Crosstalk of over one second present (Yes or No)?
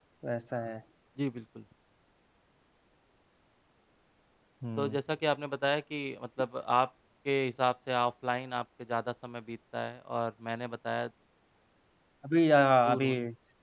No